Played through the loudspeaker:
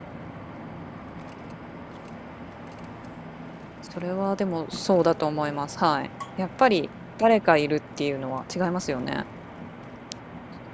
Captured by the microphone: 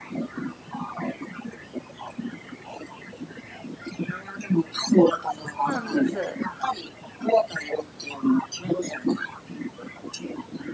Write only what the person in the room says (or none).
そうなんです。